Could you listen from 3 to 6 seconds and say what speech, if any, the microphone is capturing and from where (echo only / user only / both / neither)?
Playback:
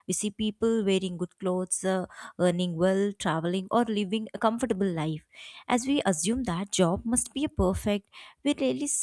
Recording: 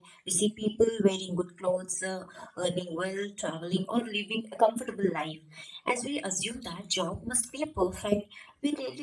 echo only